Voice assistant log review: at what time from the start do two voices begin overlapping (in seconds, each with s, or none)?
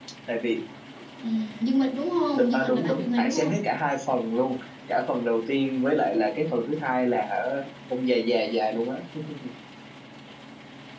2.3 s